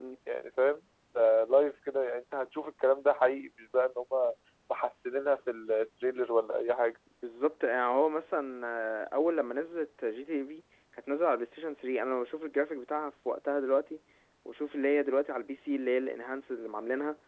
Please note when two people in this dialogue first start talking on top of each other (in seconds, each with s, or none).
none